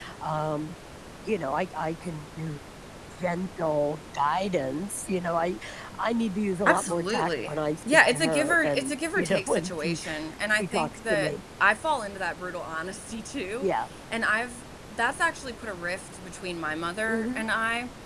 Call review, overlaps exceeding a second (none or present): present